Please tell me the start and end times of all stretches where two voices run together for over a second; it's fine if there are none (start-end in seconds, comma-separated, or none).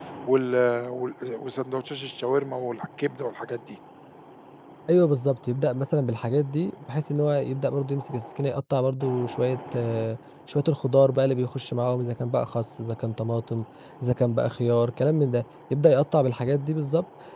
none